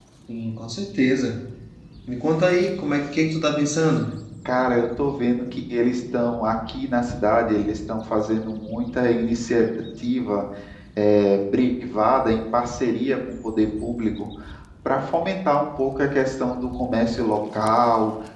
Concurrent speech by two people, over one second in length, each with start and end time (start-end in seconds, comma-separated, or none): none